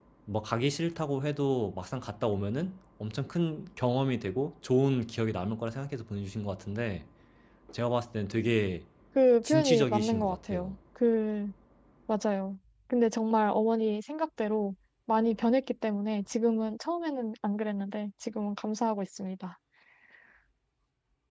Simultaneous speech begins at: 9.4 s

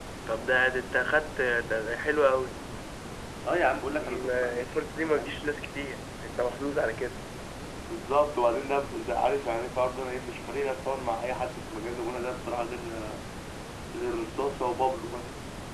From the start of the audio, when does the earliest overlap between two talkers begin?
3.9 s

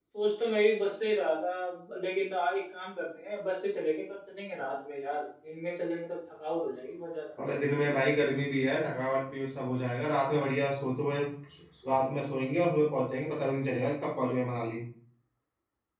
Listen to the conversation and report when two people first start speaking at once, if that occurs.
none

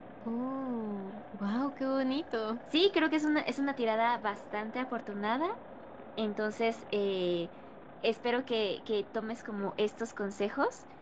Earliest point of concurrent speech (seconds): none

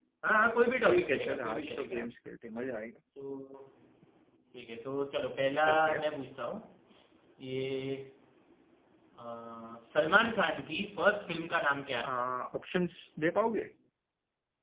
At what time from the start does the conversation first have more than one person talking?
0.8 s

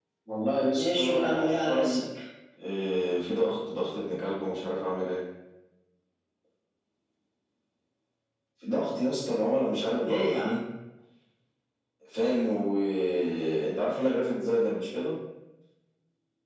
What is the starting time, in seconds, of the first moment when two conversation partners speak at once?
0.8 s

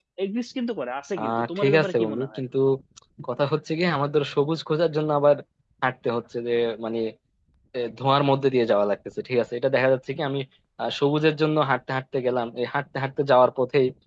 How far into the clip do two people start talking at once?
1.2 s

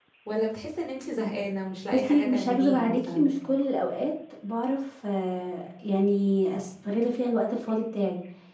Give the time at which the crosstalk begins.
1.9 s

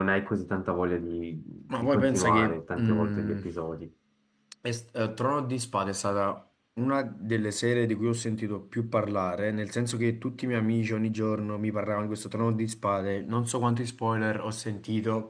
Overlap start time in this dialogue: 1.7 s

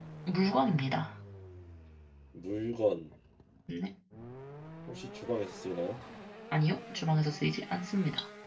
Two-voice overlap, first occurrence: none

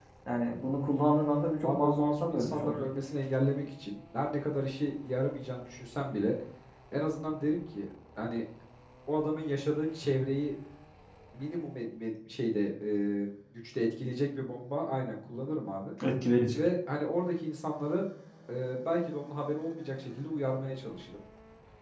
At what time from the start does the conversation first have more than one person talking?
1.6 s

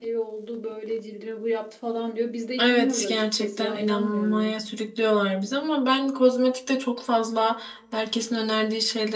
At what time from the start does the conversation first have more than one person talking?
2.6 s

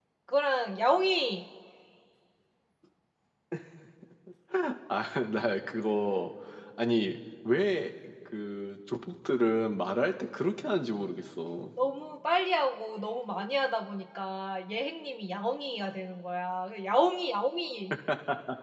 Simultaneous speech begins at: none

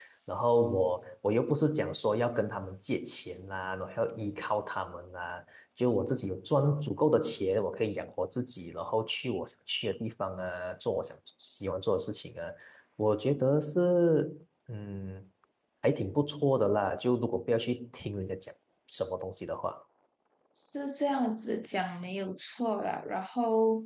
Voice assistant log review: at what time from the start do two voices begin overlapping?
none

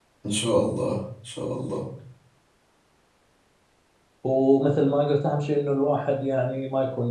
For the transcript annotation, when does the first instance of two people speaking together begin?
none

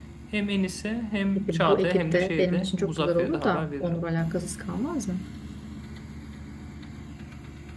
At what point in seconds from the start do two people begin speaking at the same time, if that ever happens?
1.4 s

